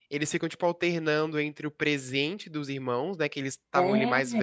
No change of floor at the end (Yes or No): Yes